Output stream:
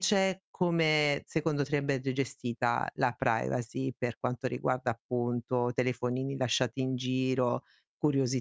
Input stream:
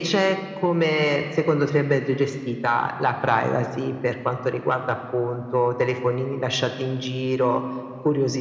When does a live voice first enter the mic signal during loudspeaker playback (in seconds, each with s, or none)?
none